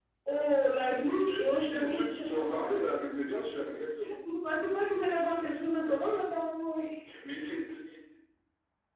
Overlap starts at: 1 s

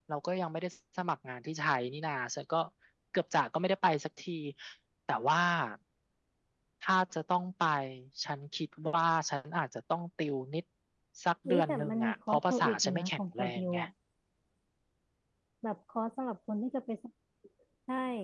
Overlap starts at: 11 s

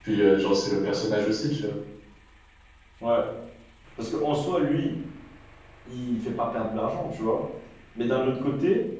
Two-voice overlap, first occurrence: none

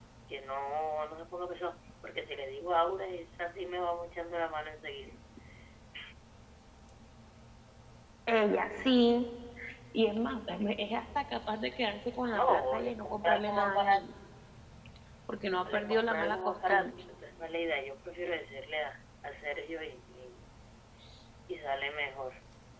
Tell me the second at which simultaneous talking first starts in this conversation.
12 s

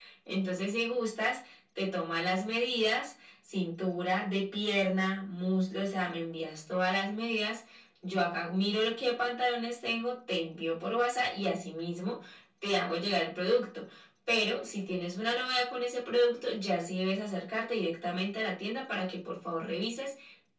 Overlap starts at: none

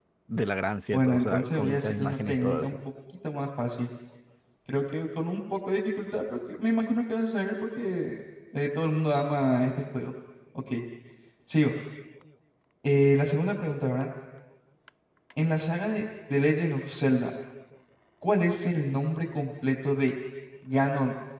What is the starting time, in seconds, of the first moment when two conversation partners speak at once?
1 s

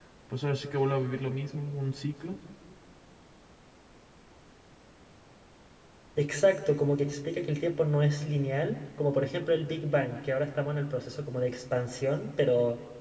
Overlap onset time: none

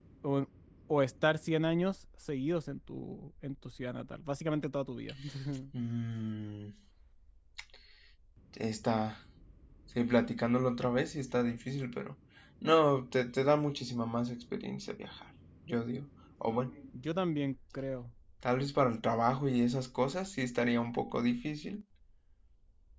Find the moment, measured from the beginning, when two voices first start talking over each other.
none

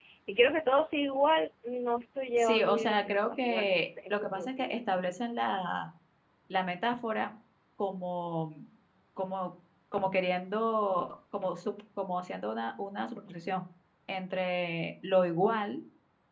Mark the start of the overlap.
2 s

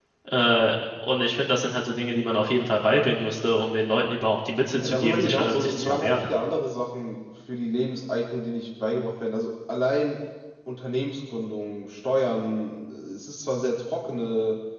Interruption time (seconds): 5 s

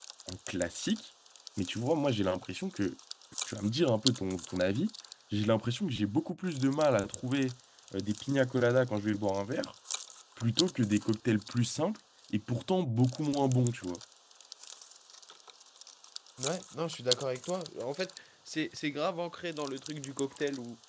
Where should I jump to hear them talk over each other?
none

